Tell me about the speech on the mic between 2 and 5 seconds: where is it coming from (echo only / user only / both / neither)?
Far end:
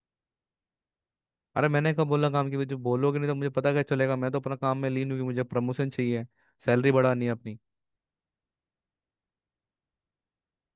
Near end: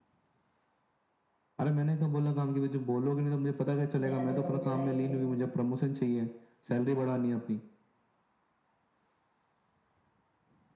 both